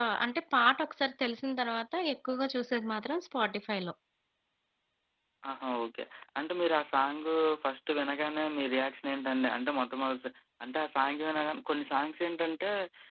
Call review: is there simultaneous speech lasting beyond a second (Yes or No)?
No